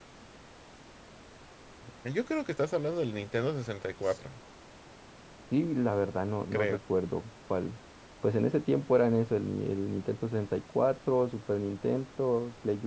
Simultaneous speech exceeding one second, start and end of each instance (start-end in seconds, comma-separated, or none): none